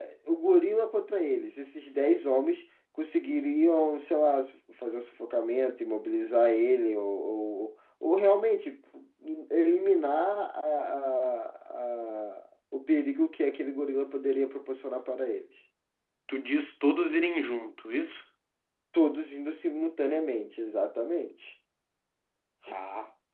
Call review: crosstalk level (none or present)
none